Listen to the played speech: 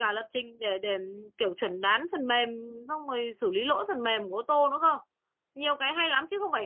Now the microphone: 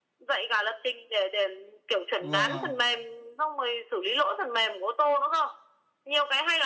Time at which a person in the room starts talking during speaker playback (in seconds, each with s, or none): 2.2 s